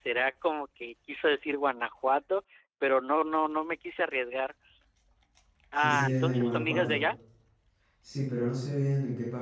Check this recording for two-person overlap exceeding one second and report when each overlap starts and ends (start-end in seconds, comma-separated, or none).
5.8-7.0